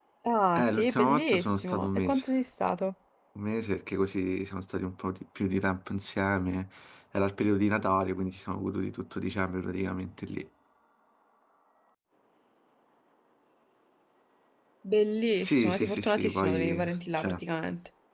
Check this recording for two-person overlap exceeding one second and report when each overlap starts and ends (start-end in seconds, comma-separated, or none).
0.6-2.2, 15.4-17.4